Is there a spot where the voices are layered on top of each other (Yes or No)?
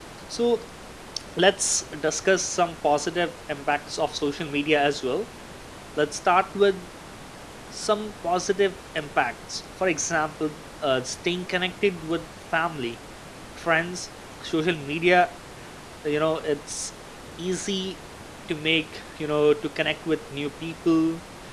No